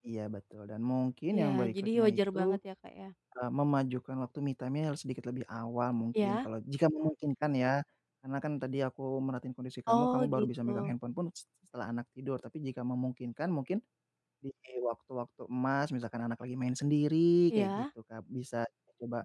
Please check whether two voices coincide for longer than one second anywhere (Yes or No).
Yes